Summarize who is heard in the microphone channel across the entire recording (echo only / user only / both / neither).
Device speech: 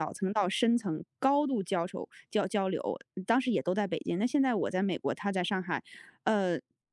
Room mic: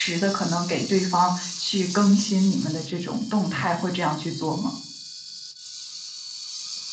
user only